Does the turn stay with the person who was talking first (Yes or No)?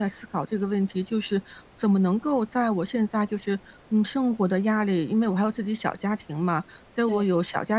Yes